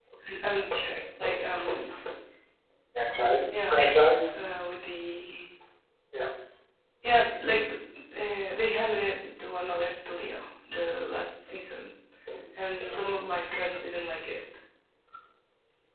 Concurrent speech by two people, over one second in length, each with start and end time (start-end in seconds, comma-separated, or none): none